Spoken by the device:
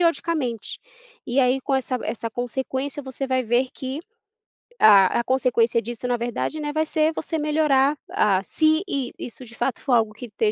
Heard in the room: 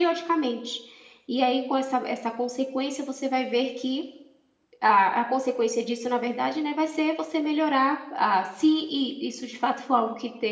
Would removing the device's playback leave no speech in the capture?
Yes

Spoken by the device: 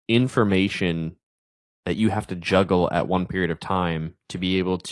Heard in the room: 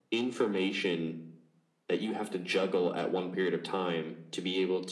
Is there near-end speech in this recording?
No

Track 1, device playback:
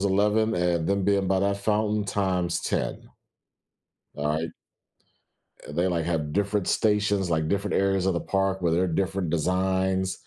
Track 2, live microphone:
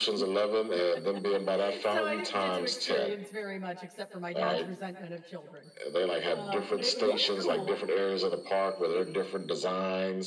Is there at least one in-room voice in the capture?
Yes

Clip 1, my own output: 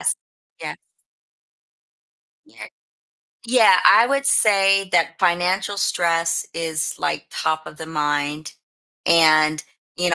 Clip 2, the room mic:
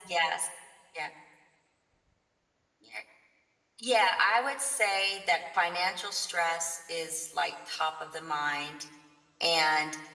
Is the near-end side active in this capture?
No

